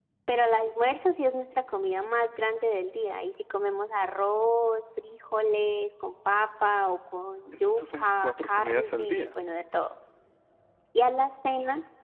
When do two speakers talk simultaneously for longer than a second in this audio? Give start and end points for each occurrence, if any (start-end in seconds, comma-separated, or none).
7.5-9.4